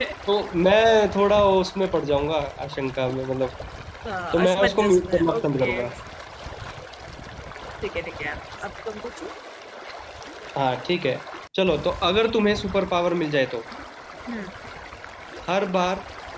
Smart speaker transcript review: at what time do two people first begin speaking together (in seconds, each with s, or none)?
4.3 s